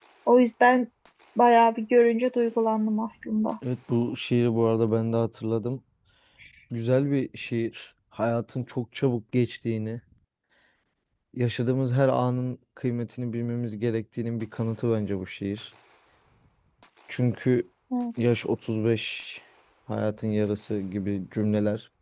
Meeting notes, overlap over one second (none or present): none